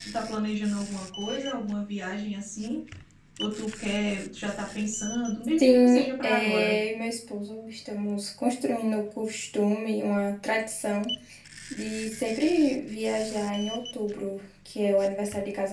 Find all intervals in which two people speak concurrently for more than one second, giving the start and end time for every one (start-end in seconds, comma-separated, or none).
5.6-6.8